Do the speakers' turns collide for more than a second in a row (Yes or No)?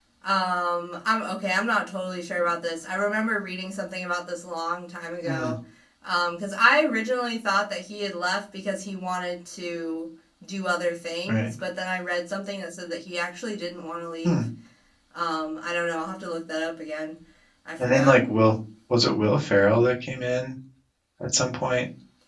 No